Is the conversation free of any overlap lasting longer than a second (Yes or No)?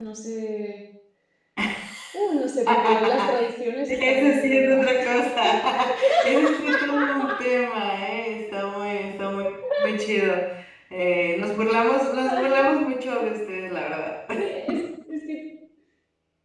No